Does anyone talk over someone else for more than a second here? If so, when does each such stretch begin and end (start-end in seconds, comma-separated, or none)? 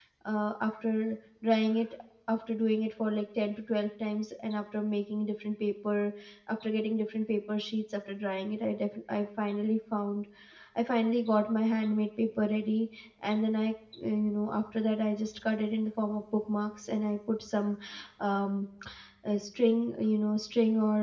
none